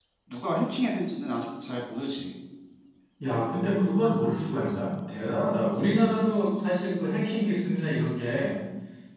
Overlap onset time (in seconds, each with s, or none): none